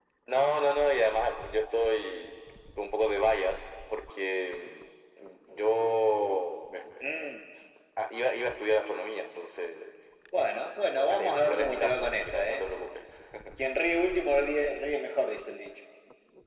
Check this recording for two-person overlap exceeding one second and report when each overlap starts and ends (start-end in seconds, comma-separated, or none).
10.6-12.7